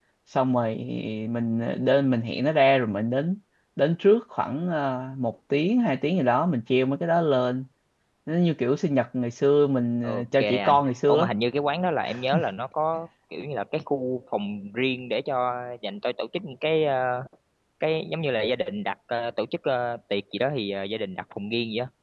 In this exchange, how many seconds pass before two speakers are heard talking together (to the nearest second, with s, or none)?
10 s